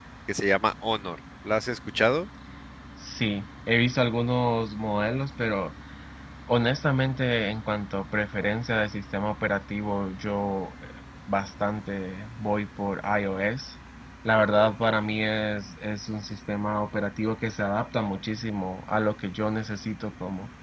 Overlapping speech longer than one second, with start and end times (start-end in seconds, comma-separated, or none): none